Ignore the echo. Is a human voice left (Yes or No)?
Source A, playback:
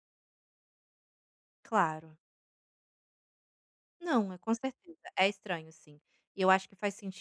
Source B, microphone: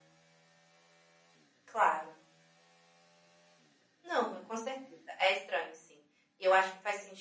No